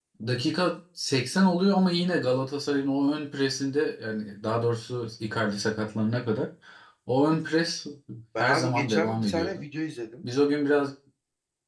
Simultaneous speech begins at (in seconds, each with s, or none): 8.4 s